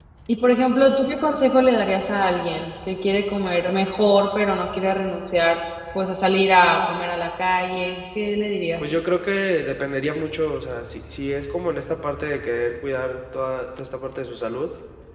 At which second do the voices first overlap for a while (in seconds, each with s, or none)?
none